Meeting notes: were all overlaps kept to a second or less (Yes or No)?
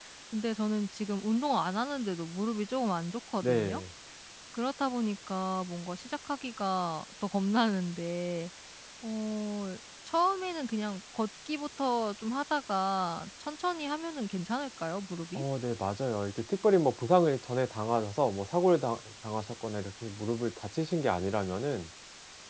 Yes